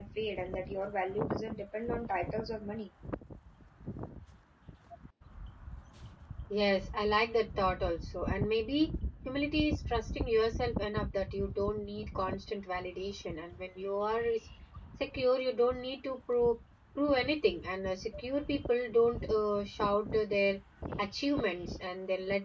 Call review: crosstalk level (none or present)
none